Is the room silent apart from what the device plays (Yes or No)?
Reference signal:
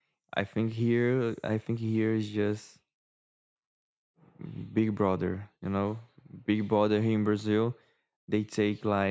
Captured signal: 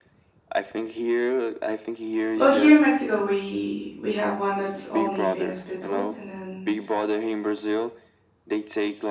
No